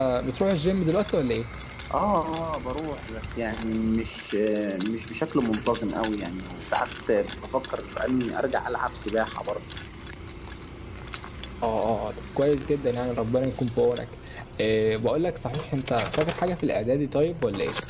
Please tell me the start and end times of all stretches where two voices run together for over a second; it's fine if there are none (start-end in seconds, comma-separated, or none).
none